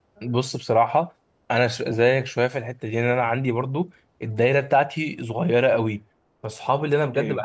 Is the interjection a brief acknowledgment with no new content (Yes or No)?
Yes